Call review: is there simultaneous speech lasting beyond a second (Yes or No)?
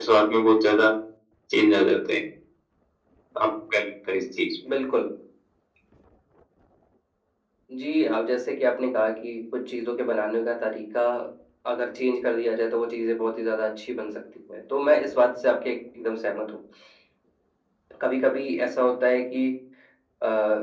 No